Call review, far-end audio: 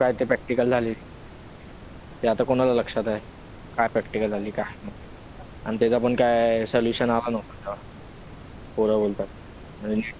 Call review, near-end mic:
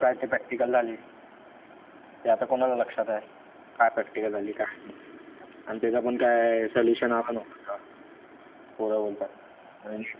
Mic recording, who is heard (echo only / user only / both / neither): echo only